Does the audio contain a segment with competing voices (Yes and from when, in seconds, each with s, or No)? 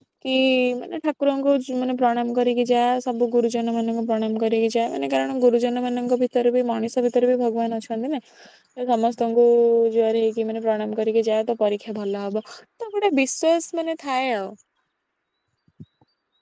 No